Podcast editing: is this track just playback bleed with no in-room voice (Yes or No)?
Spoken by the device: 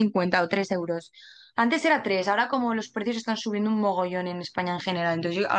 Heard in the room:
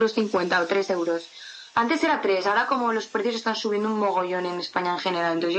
Yes